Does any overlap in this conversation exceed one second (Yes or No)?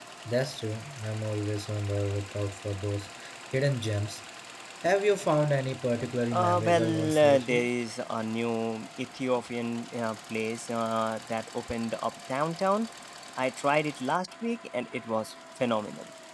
Yes